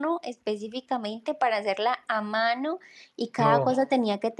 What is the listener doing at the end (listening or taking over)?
listening